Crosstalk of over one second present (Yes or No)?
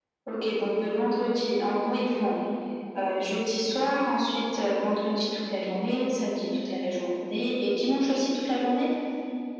No